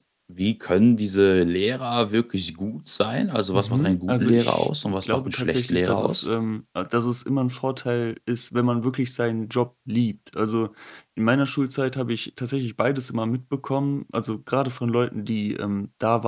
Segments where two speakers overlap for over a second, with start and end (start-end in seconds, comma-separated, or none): 3.5-6.3